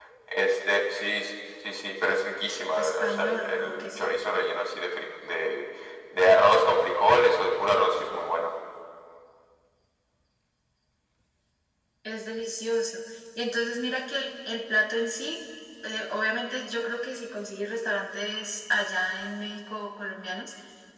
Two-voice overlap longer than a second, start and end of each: 2.8-4.1

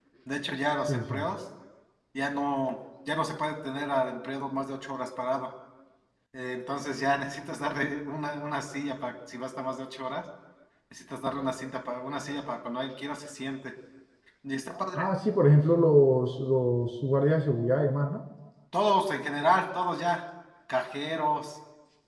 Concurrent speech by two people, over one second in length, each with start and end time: none

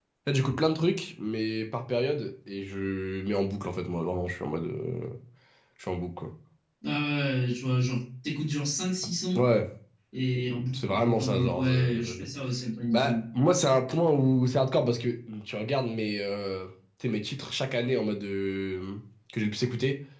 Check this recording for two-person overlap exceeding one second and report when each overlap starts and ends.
10.8-12.2

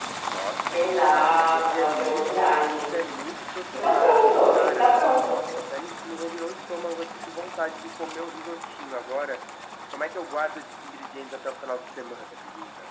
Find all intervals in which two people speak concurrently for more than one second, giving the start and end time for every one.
0.7-2.9, 3.7-5.4

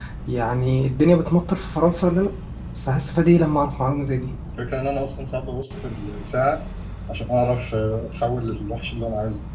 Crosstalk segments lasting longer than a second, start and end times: none

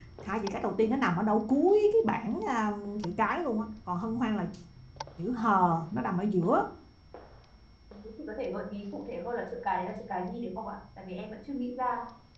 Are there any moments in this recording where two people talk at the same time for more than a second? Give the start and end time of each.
none

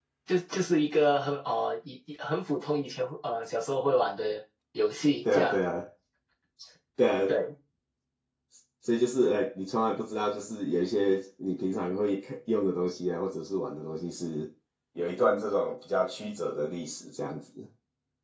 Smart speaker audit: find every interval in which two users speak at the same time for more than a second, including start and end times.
none

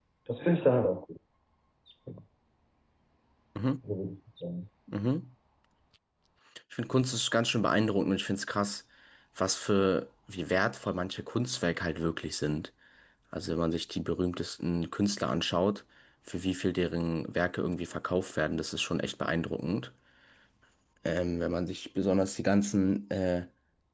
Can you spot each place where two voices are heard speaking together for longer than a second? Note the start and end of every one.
none

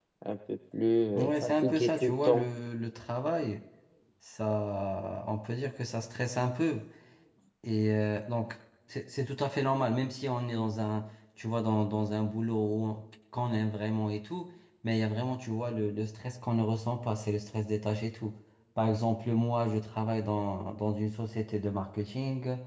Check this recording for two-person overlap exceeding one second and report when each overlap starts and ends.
1.1-2.5

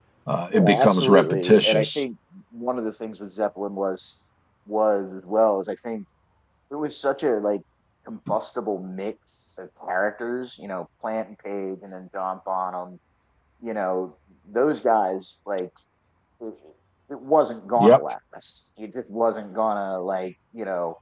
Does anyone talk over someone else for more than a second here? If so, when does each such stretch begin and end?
0.5-2.0

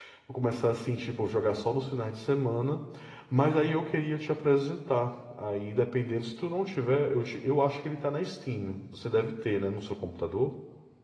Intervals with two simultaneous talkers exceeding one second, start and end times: none

